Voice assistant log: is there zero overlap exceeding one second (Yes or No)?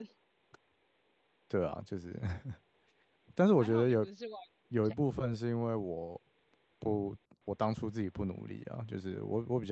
Yes